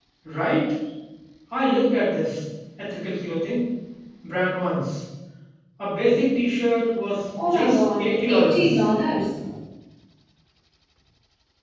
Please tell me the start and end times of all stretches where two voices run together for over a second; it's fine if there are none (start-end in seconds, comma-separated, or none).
7.4-8.8